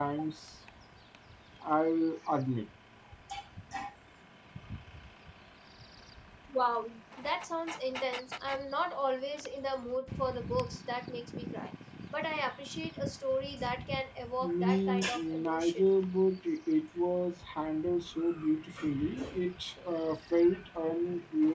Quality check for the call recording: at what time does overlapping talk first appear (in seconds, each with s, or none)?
14.4 s